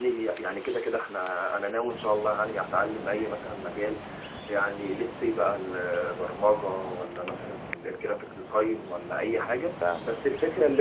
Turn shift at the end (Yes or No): No